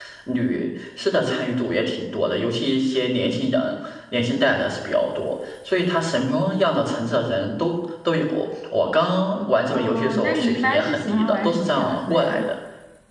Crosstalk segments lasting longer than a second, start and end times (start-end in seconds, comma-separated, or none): 9.7-12.4